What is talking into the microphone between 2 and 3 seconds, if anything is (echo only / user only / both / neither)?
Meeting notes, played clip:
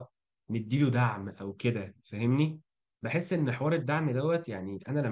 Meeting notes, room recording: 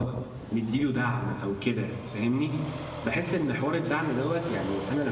echo only